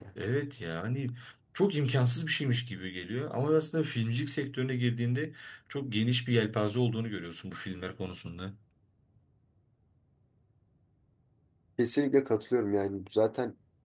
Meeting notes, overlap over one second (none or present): none